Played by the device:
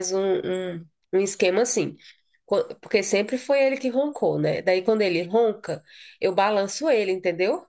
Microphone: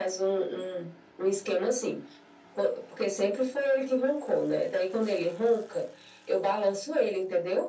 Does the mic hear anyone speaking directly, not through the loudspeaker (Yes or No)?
No